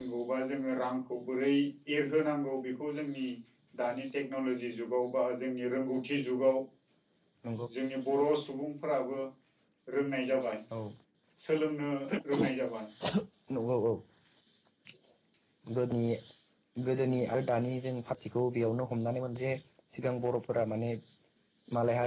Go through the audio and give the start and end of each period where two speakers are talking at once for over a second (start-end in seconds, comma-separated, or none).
none